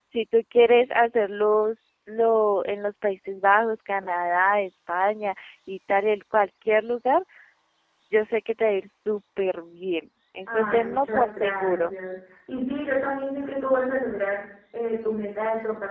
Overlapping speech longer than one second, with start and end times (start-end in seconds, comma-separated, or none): 10.5-11.9